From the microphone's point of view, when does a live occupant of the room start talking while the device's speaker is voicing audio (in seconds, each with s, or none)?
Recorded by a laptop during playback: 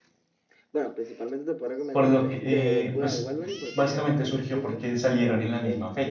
1.9 s